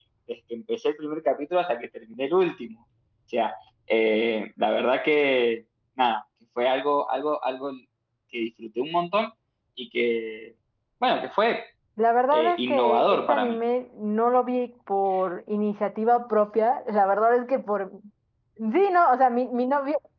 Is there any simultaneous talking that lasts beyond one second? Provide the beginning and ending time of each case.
12.3-13.6

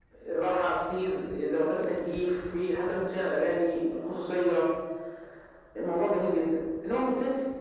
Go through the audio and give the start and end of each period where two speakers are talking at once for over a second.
none

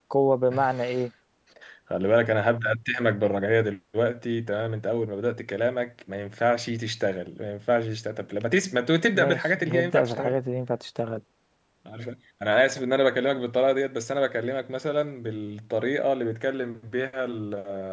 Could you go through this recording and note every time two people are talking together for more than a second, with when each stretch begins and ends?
9.1-10.4

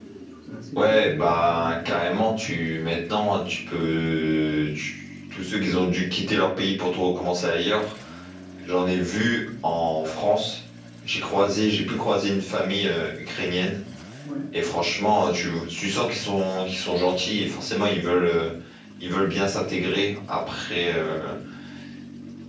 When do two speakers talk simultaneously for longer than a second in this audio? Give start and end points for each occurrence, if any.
0.8-2.0

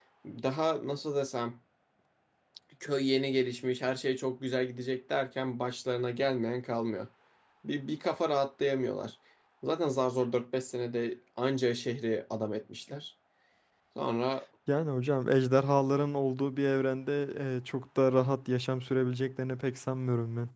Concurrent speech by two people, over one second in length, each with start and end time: none

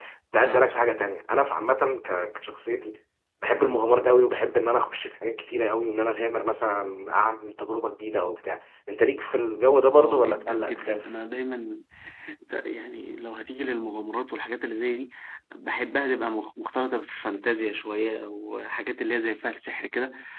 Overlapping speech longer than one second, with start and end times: 9.9-11.1

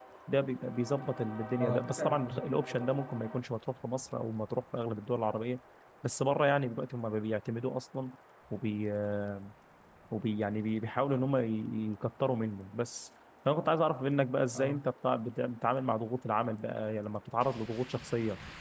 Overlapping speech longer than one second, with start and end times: 1.6-3.0

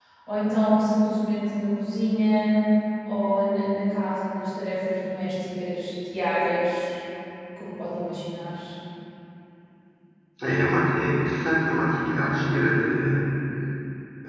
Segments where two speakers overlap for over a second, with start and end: none

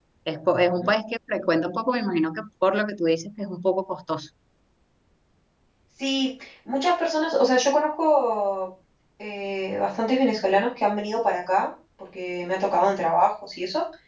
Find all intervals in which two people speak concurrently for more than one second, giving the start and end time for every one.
none

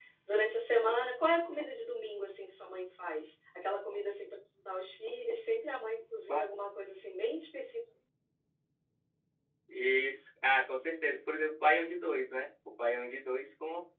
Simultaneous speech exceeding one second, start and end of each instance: none

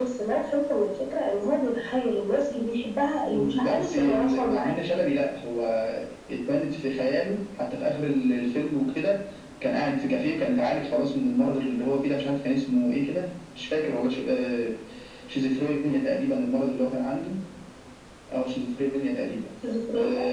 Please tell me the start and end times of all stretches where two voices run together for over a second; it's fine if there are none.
3.2-4.7

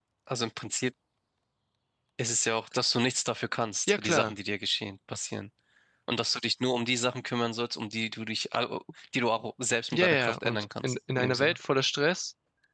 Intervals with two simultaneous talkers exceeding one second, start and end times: 9.9-11.6

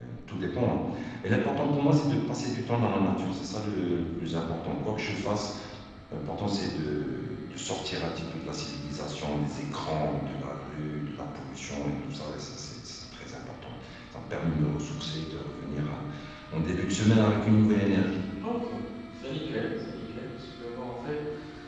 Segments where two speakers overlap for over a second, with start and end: none

